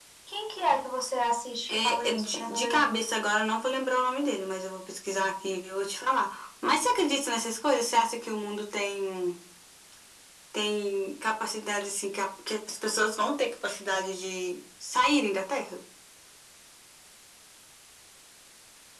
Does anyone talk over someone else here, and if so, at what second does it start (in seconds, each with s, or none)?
1.7 s